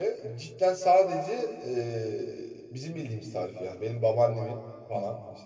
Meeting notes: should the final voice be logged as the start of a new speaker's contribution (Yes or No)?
No